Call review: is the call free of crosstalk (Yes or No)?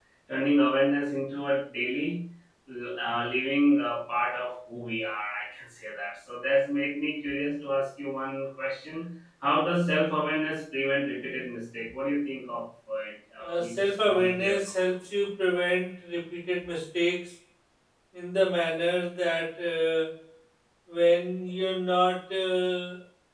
No